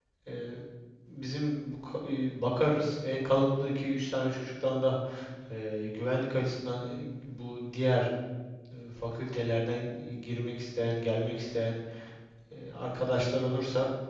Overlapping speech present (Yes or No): No